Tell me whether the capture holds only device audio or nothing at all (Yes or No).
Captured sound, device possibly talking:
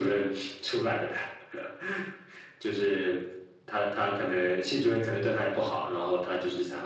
Yes